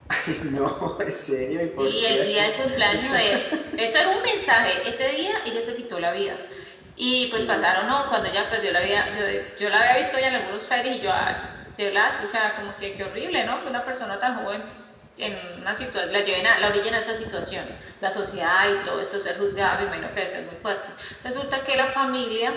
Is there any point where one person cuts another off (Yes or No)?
Yes